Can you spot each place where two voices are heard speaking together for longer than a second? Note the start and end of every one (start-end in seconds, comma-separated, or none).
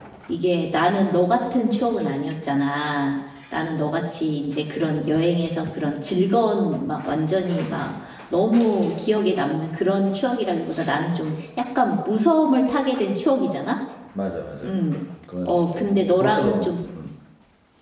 15.4-16.7